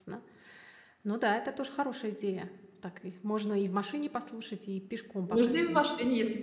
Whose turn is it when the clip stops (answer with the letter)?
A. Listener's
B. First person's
A